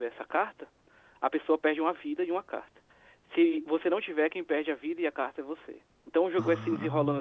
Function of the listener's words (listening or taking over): listening